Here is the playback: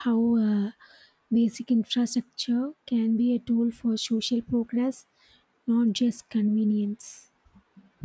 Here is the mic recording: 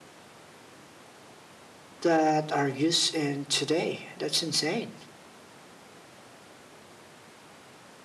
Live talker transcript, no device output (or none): that are used in today. That's insane.